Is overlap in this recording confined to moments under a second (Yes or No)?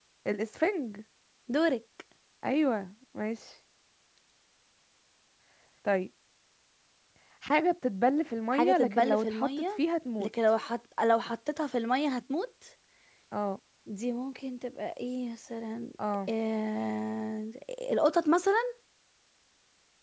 No